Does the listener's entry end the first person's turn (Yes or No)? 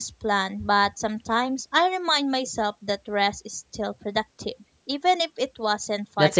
Yes